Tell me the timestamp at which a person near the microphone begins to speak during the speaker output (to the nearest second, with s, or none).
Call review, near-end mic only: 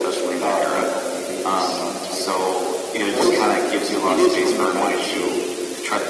none